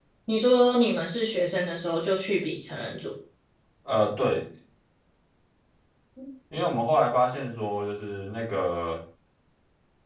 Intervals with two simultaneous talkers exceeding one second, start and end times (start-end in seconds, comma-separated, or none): none